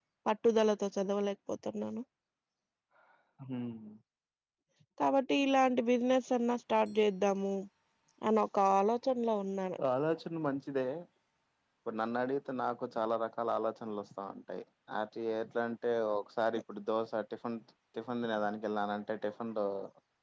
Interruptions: none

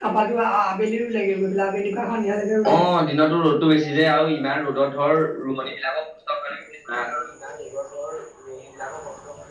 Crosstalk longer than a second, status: none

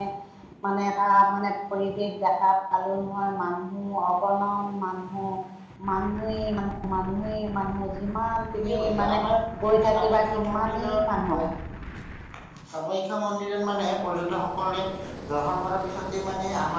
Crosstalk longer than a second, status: present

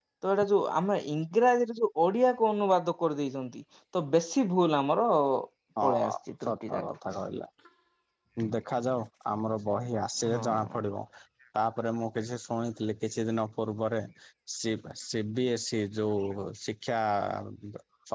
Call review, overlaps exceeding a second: none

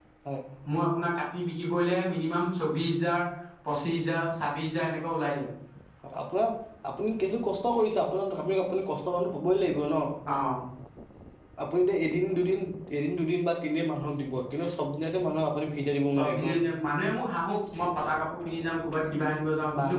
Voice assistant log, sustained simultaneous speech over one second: none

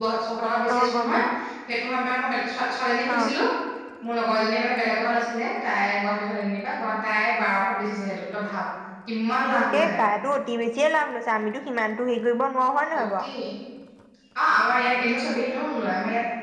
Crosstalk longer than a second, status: none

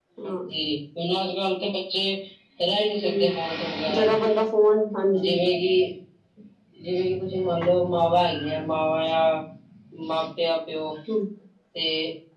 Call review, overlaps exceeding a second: none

